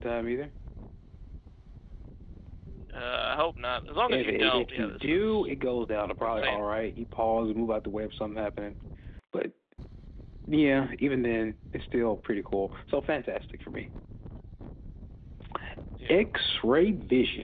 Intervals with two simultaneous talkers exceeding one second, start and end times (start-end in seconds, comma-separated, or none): 4.1-5.5